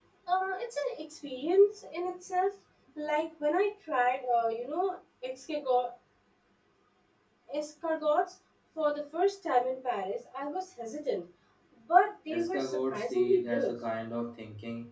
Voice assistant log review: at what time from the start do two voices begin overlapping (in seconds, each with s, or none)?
12.3 s